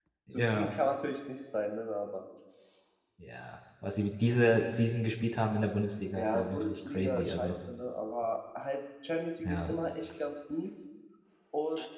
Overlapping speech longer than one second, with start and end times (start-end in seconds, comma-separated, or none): 6.2-7.5